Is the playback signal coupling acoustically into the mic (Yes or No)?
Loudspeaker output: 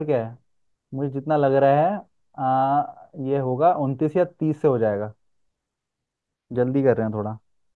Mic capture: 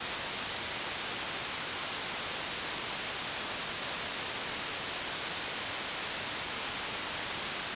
No